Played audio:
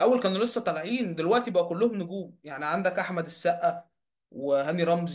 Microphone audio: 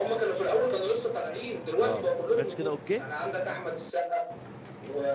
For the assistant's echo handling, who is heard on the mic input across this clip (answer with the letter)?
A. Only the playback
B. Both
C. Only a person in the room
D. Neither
B